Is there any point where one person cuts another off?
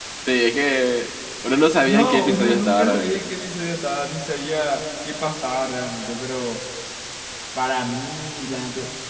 Yes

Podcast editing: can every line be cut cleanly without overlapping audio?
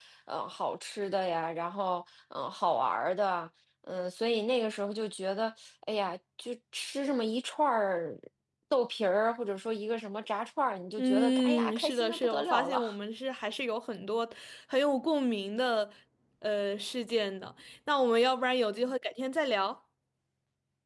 No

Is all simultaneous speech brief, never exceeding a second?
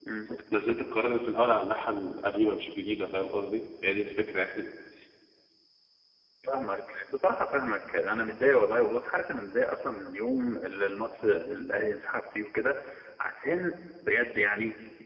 Yes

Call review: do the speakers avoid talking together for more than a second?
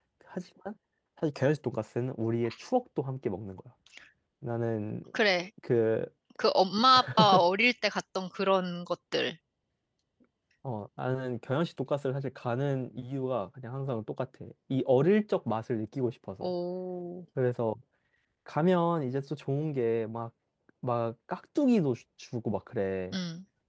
Yes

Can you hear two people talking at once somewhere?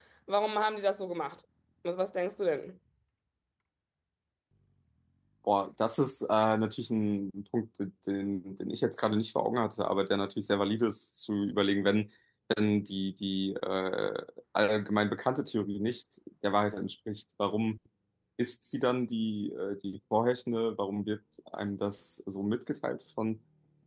No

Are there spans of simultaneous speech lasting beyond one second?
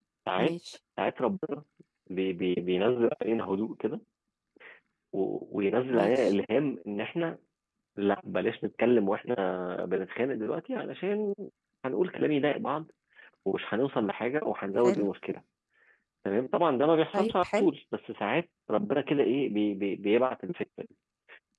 No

